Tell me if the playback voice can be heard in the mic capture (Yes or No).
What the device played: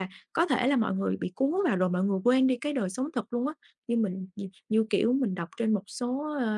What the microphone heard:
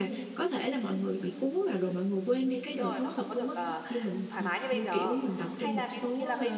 Yes